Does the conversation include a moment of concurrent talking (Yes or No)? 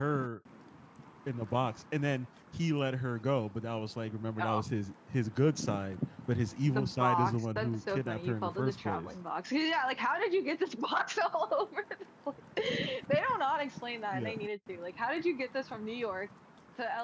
Yes